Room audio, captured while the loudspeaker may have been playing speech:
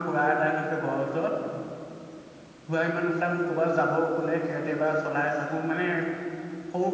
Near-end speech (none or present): none